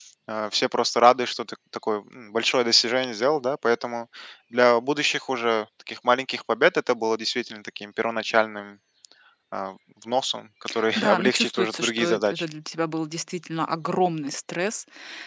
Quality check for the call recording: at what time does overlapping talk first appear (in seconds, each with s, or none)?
11.0 s